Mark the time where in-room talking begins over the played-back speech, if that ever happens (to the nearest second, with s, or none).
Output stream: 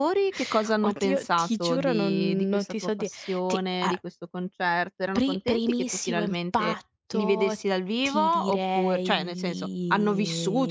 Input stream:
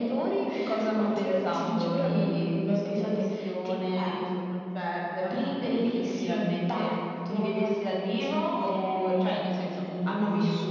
none